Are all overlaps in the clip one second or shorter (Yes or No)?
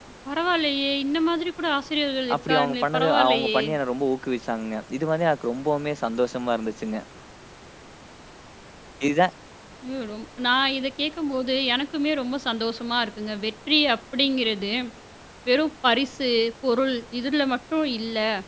No